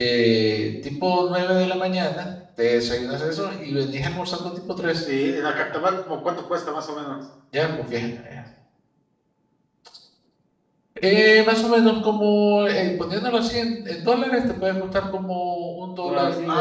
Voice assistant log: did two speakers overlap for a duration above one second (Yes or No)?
No